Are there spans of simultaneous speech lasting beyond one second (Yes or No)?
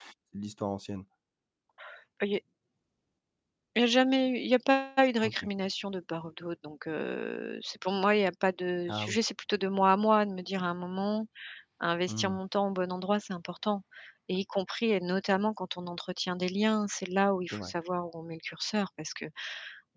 No